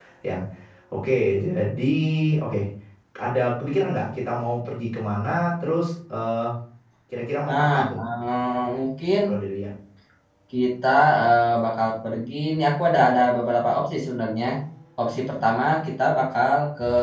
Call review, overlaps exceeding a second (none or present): none